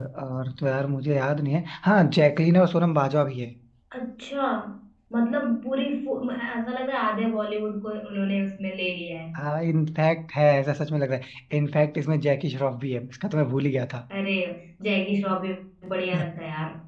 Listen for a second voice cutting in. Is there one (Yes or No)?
No